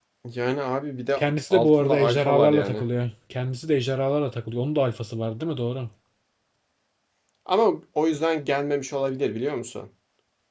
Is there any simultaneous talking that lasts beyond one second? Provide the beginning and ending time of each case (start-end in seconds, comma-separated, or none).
1.2-2.8